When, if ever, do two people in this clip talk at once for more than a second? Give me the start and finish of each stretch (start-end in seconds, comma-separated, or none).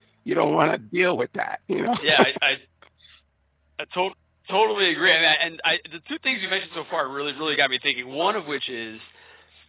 none